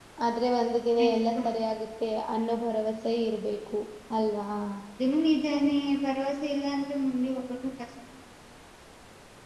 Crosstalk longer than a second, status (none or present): none